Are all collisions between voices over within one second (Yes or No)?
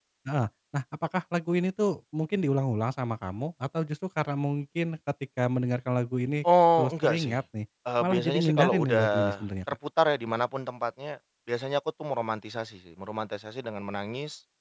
No